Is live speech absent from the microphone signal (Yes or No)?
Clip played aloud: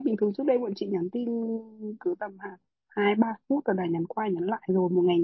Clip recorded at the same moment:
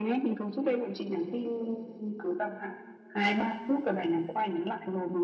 Yes